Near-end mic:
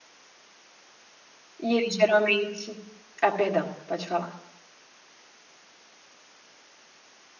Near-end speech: present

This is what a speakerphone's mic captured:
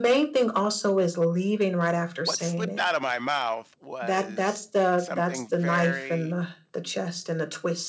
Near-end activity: present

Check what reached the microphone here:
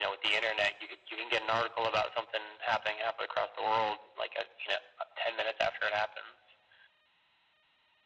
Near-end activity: none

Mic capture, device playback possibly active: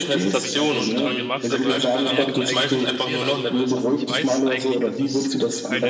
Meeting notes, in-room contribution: present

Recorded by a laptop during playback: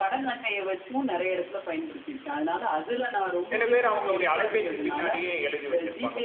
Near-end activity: present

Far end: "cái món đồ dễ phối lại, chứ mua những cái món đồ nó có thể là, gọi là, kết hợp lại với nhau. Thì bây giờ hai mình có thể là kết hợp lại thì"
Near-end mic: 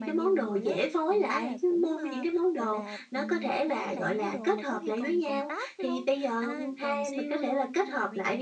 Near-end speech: present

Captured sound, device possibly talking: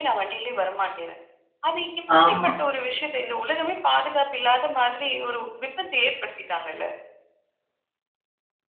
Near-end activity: present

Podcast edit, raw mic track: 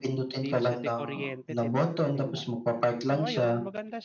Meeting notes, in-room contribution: present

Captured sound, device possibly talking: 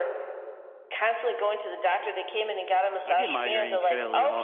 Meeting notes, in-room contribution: present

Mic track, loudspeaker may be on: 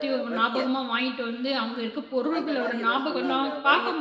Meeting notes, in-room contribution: present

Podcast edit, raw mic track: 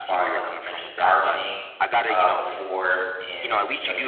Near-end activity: present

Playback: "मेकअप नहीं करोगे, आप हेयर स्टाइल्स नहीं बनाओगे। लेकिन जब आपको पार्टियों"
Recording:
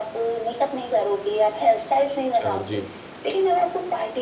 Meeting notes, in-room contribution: present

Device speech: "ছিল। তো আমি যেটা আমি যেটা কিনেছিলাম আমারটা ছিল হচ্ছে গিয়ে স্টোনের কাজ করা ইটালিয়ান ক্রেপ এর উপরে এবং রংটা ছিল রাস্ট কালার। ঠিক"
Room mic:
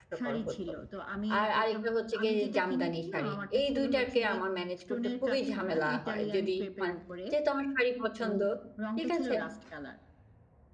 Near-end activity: present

